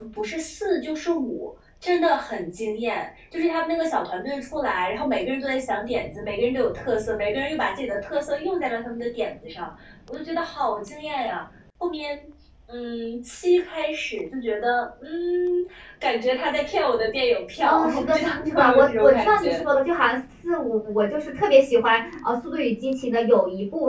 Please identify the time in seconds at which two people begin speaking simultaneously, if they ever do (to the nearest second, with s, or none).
18 s